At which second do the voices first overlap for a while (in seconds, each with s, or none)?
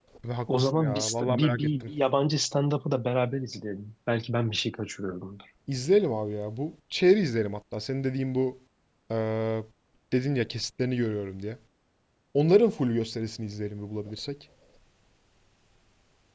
0.6 s